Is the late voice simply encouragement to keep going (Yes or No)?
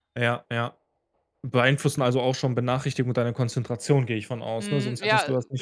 No